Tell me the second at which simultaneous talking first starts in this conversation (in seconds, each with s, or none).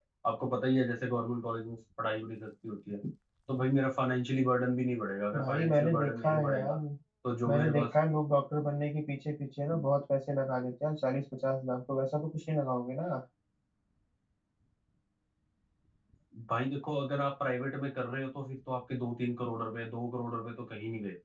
5.4 s